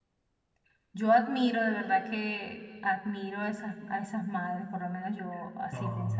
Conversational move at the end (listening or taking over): taking over